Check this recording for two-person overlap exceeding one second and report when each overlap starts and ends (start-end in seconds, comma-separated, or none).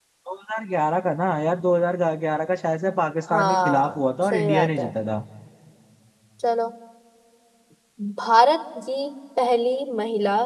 3.3-4.9